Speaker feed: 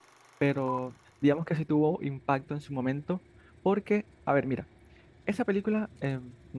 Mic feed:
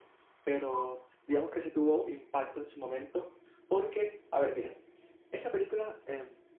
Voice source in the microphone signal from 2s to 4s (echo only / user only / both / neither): echo only